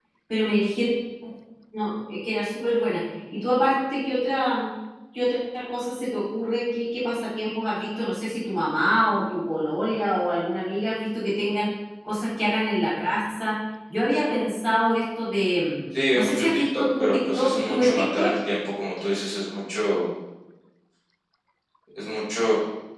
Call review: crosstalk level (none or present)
present